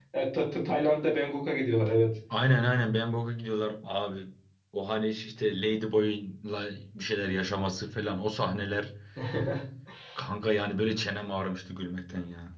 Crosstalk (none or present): none